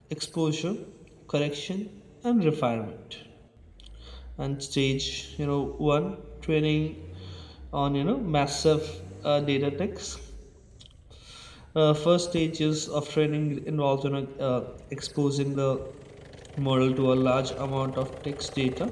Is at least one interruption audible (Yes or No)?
No